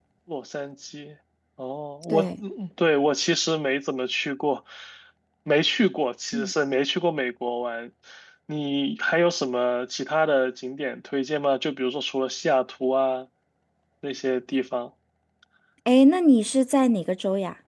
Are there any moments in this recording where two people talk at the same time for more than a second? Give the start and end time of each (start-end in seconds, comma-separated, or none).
none